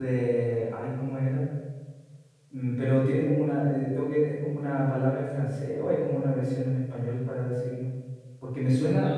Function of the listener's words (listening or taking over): taking over